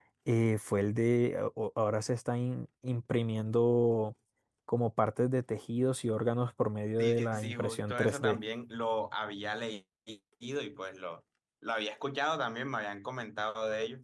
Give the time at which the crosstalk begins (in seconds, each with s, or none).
7.0 s